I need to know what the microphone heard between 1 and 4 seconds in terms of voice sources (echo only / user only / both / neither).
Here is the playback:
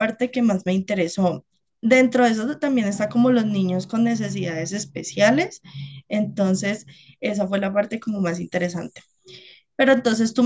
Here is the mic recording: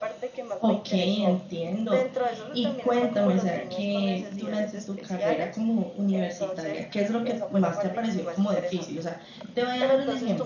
both